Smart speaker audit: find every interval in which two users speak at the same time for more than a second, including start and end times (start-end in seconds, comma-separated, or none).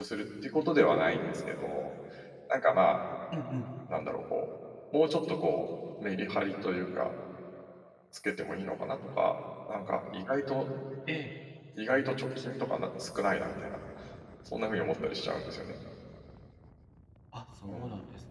none